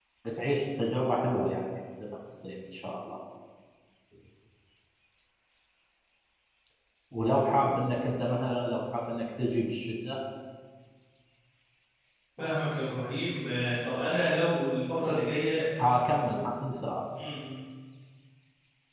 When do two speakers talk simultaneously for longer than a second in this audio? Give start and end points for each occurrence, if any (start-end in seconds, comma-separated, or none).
none